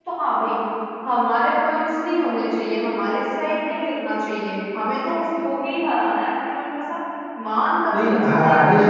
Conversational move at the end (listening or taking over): taking over